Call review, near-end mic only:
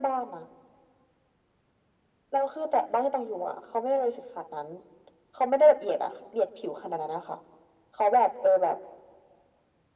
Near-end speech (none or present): none